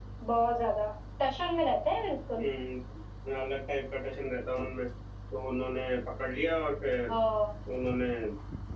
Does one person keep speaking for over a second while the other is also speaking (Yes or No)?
No